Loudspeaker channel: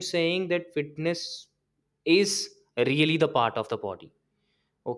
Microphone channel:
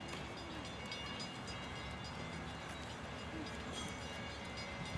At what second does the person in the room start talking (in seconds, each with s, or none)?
none